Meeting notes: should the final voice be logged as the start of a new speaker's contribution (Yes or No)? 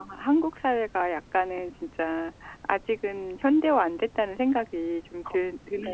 Yes